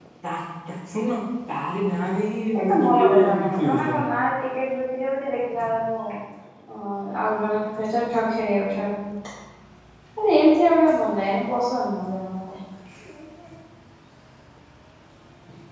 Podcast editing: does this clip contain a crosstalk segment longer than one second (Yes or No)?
Yes